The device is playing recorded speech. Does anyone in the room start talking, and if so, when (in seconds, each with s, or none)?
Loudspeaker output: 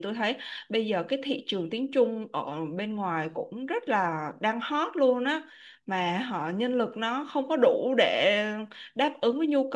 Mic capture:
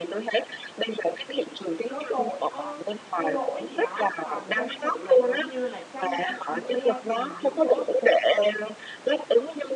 1.9 s